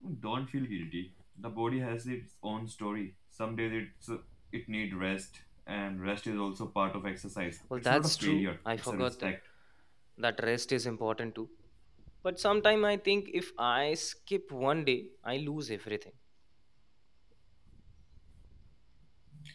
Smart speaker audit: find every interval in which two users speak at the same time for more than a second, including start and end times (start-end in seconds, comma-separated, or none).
7.8-9.3